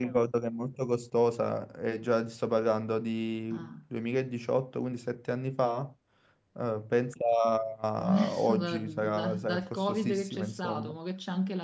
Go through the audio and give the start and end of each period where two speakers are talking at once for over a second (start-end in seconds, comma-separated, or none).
8.0-10.9